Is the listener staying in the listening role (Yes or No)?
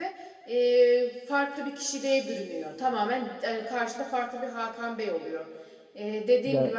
No